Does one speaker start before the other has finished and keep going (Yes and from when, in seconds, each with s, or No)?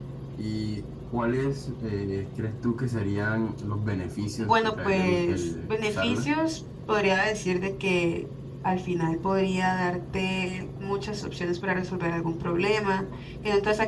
Yes, from 4.4 s